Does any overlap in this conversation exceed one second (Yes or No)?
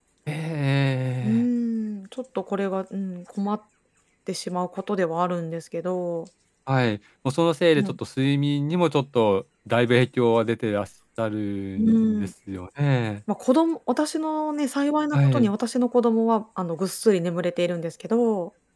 No